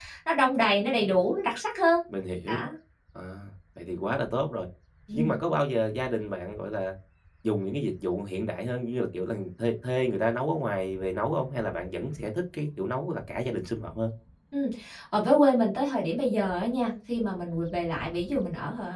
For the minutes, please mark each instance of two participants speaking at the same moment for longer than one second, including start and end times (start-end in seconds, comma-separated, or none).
none